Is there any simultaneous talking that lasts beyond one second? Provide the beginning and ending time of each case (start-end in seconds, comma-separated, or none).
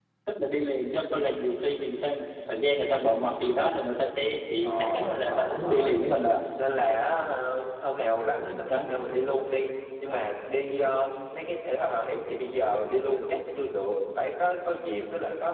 4.6-6.0